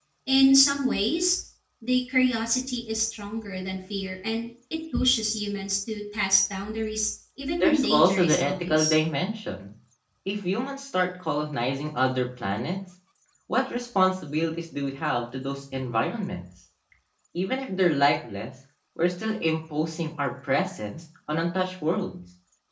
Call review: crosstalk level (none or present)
present